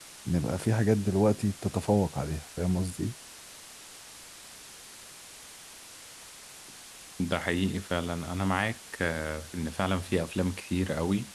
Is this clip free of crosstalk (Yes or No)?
Yes